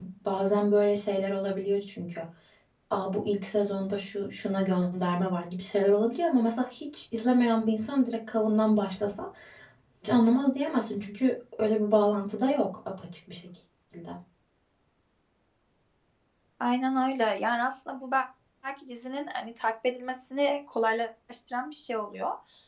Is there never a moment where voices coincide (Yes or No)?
Yes